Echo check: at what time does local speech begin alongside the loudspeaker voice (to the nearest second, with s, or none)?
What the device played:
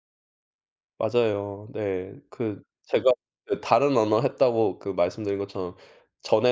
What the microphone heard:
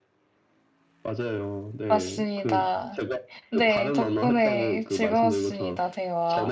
2 s